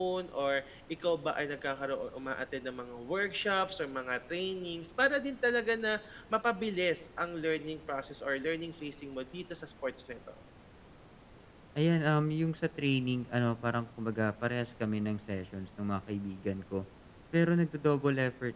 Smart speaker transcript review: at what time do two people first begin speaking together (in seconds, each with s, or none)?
none